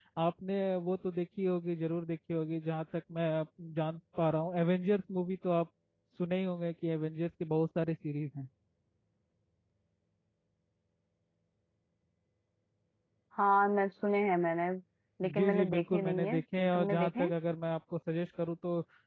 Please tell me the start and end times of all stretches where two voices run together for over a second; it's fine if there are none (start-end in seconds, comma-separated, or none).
15.4-17.3